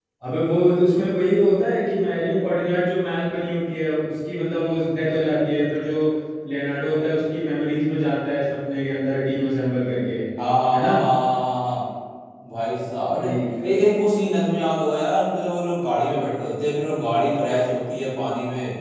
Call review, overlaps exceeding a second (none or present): none